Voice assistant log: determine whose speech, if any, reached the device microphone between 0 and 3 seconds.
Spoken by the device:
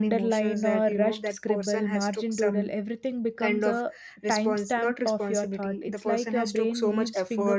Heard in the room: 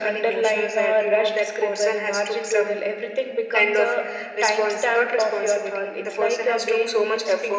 echo only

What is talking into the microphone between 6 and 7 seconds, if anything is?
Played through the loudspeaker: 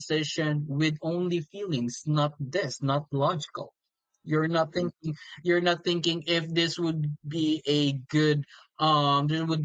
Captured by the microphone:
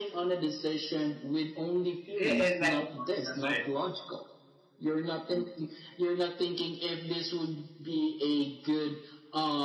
echo only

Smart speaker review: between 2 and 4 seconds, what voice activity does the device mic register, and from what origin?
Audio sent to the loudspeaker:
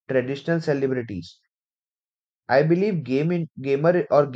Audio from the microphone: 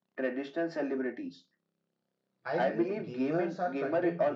both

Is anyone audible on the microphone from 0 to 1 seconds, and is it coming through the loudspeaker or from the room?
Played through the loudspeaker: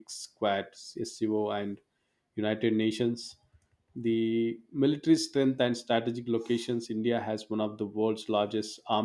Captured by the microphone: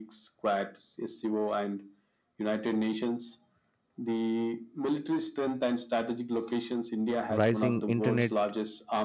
echo only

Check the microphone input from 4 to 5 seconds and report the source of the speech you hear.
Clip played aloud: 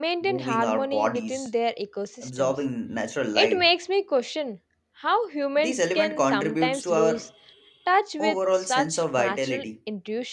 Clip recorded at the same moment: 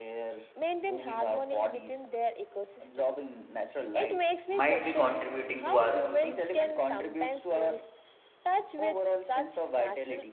both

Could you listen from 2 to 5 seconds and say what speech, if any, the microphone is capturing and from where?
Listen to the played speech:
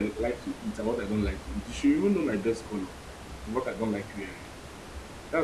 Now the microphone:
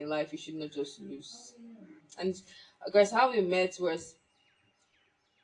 user only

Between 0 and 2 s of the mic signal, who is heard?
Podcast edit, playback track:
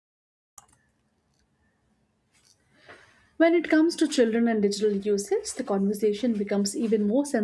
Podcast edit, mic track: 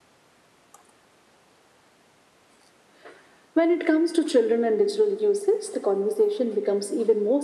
neither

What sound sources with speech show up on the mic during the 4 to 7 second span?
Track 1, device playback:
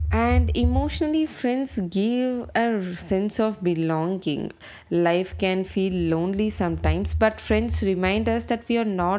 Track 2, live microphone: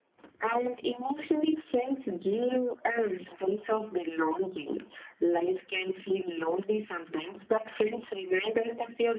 echo only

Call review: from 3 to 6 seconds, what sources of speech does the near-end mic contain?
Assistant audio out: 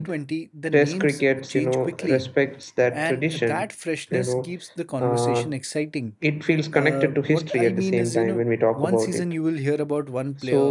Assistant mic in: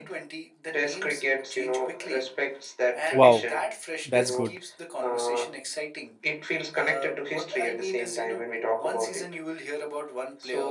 both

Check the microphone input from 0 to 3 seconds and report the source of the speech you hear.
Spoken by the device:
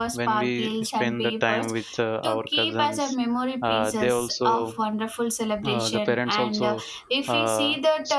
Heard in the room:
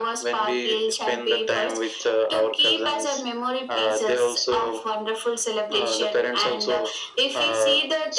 echo only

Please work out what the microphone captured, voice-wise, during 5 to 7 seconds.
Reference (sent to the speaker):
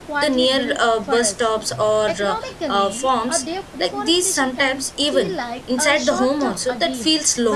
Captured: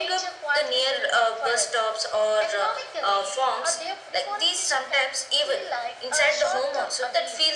echo only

